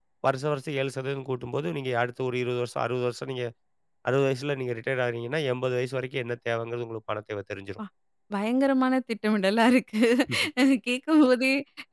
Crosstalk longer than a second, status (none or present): none